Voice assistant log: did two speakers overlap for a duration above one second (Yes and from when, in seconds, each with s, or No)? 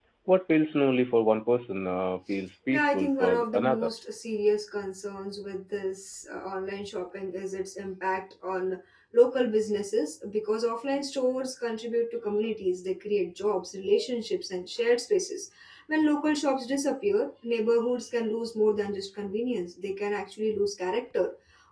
Yes, from 2.7 s